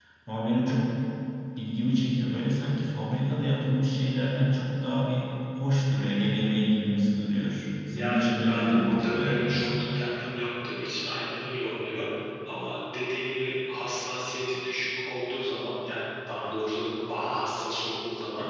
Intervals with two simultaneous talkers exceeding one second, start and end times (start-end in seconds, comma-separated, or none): 7.9-9.8